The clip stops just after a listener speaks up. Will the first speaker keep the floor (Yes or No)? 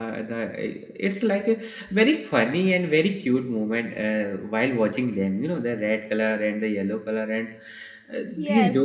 No